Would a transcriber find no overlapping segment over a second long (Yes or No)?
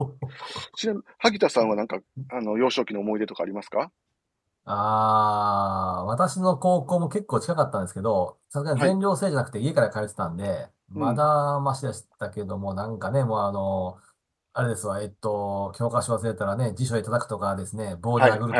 Yes